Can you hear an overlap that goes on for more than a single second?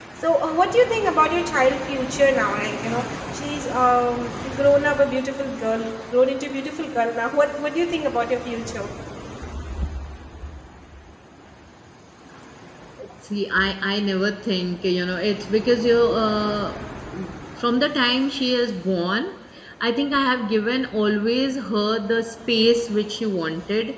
No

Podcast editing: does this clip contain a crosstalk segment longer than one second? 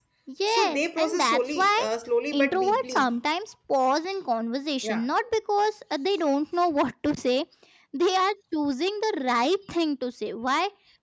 Yes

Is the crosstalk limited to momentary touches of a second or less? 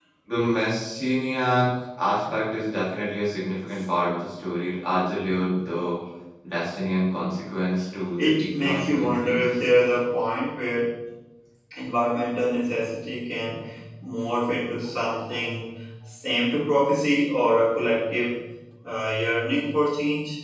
No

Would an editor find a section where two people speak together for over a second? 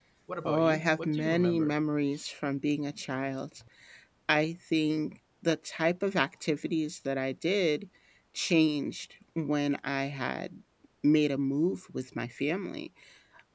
Yes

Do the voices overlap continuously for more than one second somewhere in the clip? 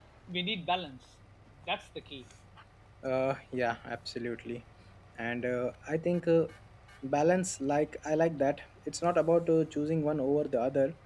No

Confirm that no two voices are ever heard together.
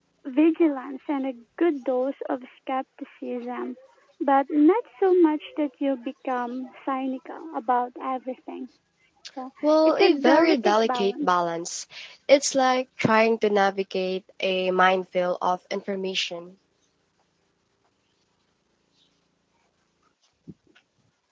No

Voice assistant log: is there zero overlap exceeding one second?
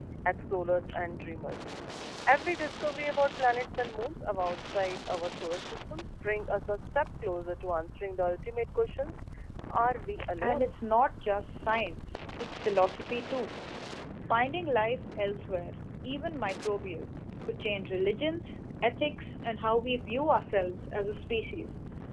Yes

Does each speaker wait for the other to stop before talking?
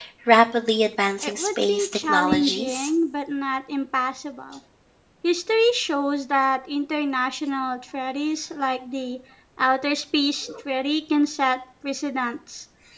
No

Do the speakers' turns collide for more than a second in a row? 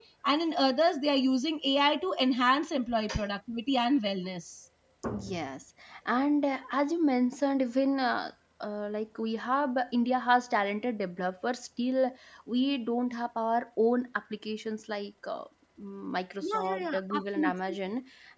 Yes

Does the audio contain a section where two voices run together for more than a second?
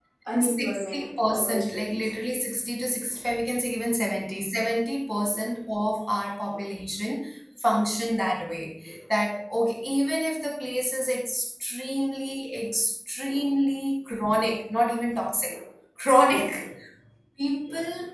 Yes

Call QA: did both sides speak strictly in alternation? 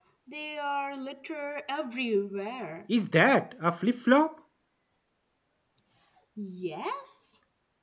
Yes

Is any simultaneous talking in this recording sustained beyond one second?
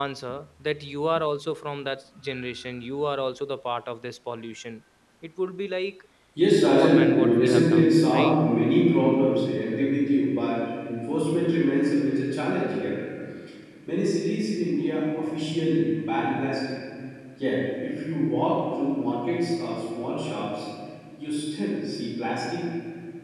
Yes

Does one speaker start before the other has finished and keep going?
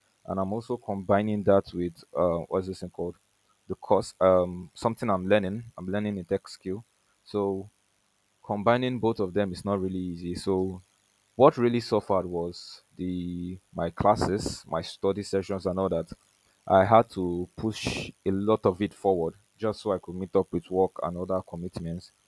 No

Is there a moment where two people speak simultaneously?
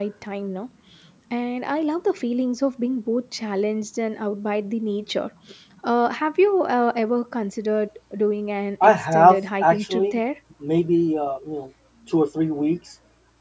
Yes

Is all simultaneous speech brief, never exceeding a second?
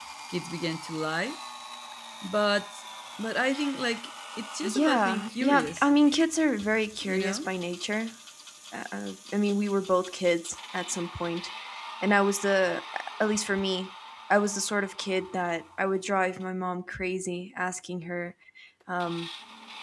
No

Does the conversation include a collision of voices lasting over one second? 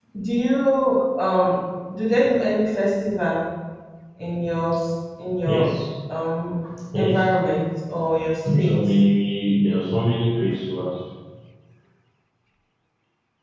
No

